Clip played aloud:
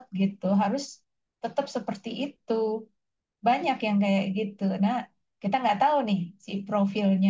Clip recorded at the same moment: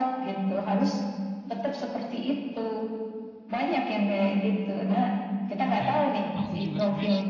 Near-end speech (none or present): present